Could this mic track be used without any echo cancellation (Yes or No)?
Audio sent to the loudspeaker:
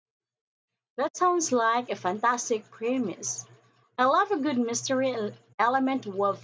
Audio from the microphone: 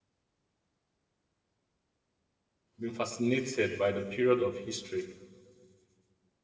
Yes